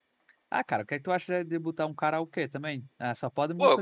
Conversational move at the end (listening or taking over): taking over